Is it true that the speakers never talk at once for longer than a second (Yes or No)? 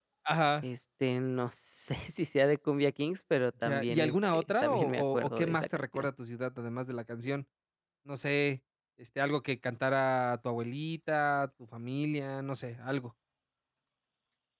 No